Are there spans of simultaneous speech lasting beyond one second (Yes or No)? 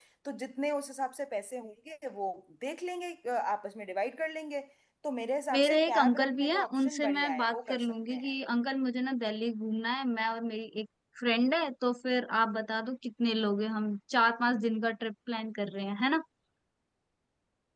Yes